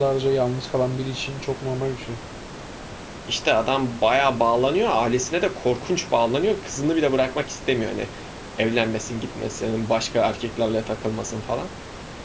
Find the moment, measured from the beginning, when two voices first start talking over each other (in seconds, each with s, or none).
none